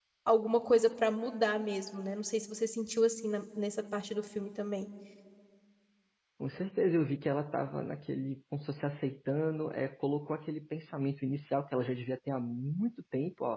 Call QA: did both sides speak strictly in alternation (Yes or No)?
Yes